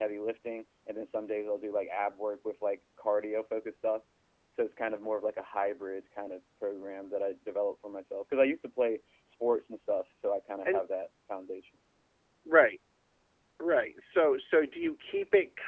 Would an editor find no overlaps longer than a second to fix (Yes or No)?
Yes